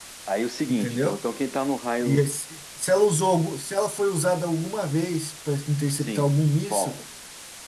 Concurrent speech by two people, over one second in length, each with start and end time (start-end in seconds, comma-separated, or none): none